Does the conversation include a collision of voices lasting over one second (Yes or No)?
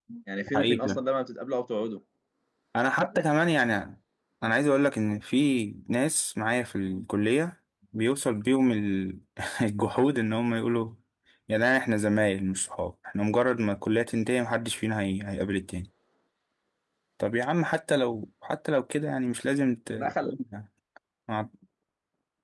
No